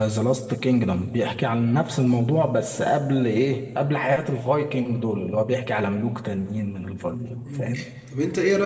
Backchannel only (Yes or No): No